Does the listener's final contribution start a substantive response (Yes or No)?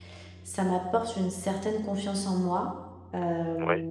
No